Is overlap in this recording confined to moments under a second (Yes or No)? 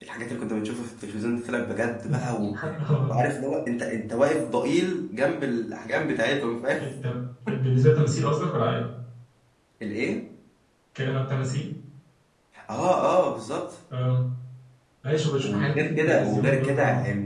No